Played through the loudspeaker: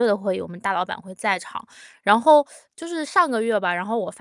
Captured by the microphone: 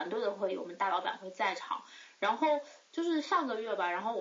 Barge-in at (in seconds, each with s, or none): none